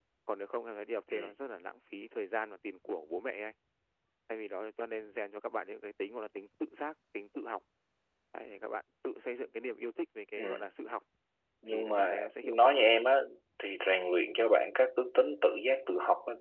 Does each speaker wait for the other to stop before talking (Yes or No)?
No